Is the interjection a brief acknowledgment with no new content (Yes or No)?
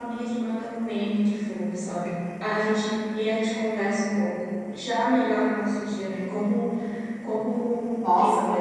No